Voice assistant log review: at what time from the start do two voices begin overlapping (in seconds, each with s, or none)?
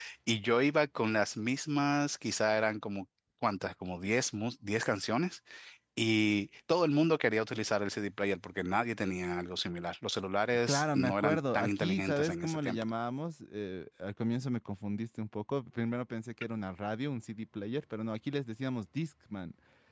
10.7 s